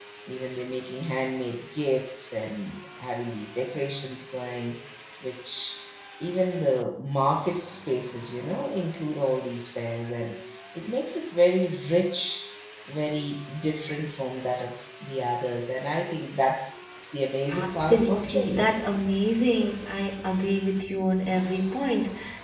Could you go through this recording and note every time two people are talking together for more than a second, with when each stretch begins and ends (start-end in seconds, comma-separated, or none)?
17.5-18.7